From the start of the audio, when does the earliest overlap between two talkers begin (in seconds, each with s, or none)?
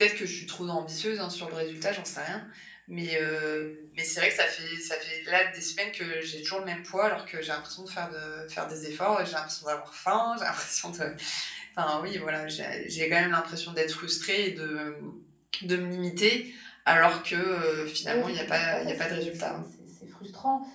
18.1 s